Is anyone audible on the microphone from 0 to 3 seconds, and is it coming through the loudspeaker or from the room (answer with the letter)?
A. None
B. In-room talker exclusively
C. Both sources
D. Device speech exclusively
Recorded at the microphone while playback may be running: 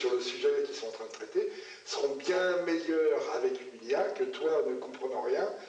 D